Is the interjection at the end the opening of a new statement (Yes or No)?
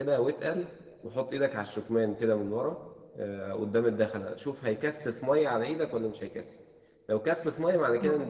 No